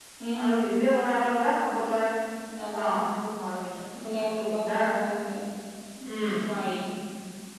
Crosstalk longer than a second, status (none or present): none